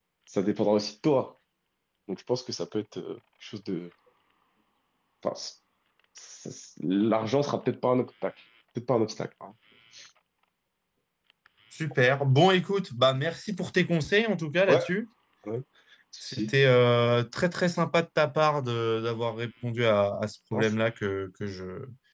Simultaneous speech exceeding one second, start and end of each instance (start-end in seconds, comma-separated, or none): none